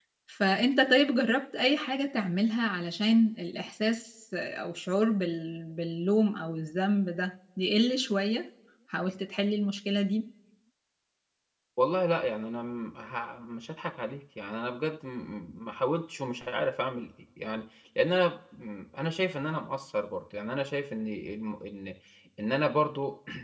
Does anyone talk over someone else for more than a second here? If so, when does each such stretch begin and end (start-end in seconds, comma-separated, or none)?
none